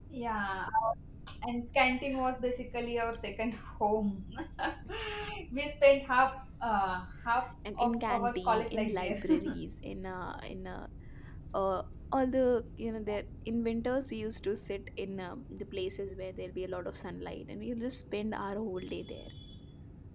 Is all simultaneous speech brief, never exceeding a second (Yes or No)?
No